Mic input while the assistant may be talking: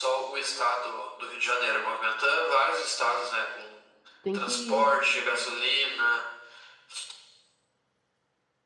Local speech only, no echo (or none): Tem que ir.